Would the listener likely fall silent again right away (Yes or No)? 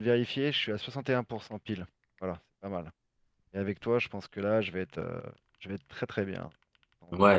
No